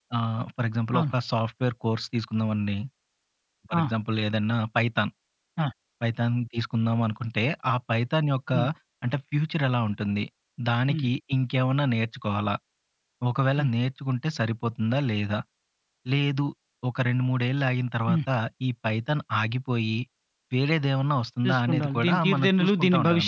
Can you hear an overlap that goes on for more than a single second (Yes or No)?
Yes